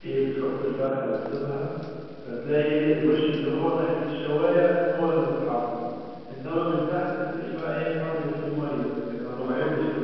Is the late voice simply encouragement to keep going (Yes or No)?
No